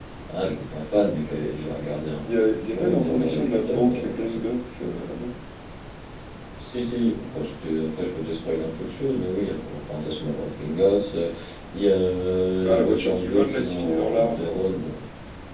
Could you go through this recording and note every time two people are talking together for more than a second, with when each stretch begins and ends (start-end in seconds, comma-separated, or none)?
2.7-4.4, 12.6-14.6